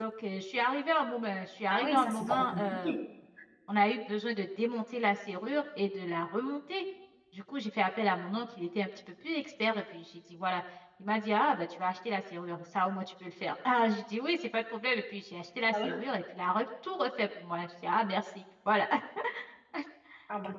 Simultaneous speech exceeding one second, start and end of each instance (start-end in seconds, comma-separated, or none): 1.7-2.9